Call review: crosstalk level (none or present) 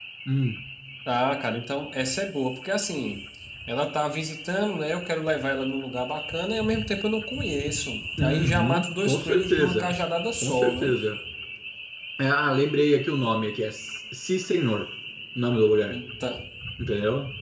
present